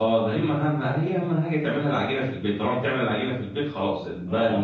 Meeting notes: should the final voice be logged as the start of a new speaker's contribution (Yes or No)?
Yes